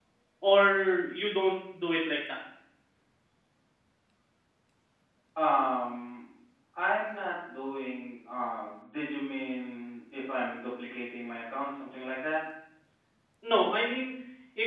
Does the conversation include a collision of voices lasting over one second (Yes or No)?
No